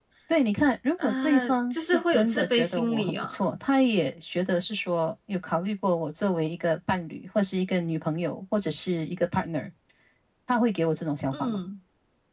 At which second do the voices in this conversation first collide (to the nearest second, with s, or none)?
1 s